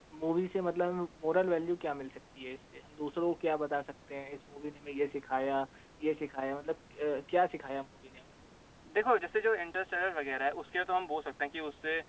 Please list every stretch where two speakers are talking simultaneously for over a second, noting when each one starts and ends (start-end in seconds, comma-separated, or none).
none